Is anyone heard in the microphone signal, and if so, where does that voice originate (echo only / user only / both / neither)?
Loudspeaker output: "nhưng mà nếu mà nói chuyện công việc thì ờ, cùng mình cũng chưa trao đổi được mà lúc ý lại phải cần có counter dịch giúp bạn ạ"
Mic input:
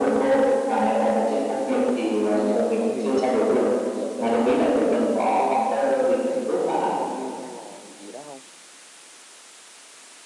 both